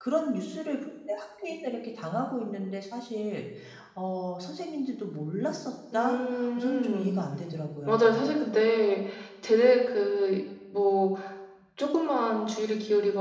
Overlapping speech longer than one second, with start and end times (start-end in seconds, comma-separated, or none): 5.9-7.2